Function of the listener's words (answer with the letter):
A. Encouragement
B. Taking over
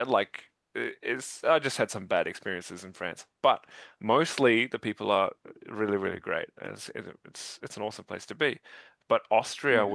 A